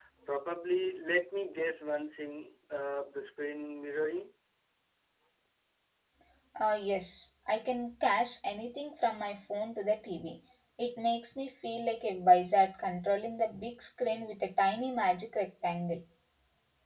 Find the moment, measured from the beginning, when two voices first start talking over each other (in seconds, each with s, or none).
none